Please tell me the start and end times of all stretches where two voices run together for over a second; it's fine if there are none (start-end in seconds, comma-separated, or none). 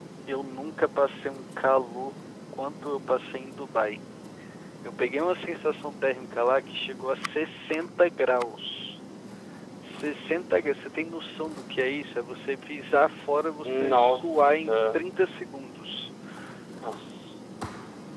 13.6-15.0